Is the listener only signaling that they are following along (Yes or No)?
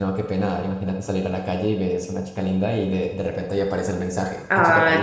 No